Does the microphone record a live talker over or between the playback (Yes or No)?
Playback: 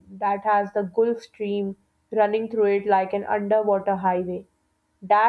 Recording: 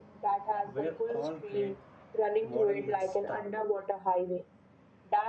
Yes